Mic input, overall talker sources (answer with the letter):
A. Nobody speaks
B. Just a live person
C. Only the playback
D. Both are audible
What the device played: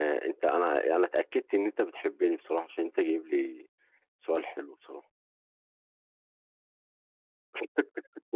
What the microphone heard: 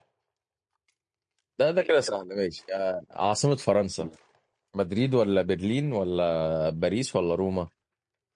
B